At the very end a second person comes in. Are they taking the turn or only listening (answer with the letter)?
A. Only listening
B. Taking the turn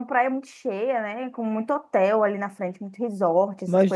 B